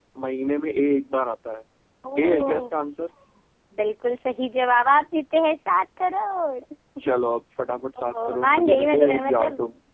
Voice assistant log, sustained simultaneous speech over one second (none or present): present